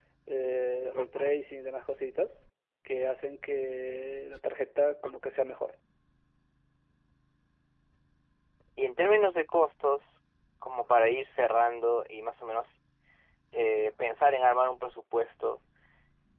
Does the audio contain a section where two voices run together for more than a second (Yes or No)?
No